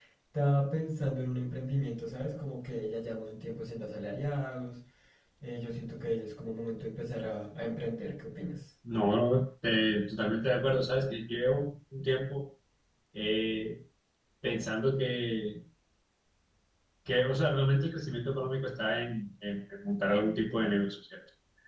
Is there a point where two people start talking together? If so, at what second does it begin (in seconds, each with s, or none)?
none